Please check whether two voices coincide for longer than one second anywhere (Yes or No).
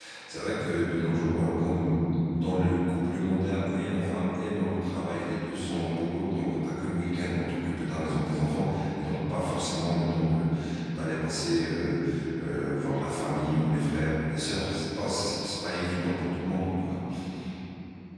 No